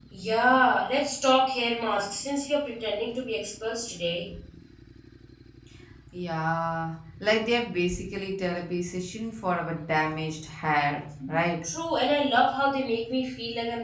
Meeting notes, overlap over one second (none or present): none